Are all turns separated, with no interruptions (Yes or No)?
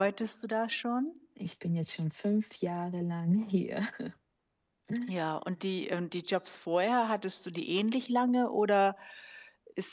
Yes